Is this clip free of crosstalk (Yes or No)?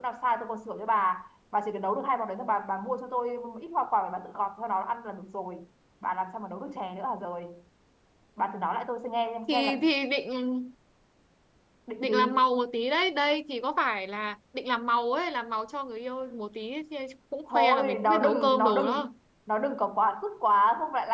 No